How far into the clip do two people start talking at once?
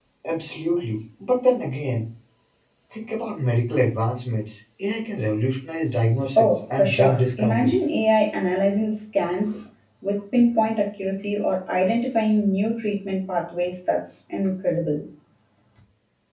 6 s

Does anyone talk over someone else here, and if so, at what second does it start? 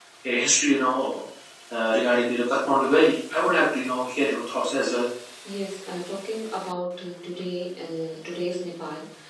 none

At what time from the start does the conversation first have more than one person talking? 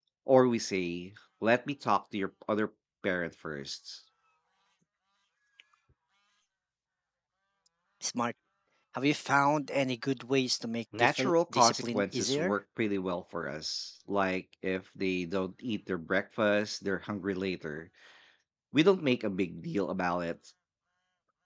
11 s

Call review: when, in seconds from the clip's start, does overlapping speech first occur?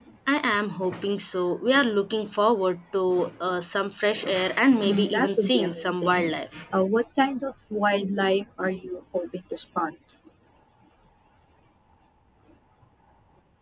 5 s

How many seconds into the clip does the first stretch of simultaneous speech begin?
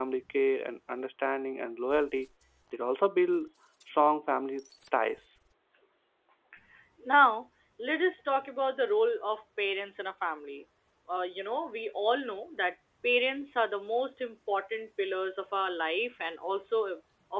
none

